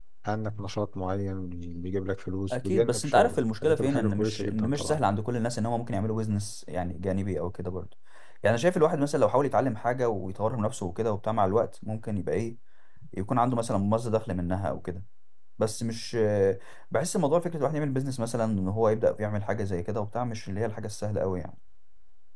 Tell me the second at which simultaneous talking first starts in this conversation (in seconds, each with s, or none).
2.5 s